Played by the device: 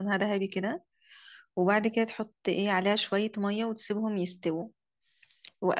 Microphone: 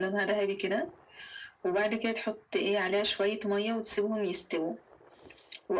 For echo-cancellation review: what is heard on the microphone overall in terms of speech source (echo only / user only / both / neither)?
echo only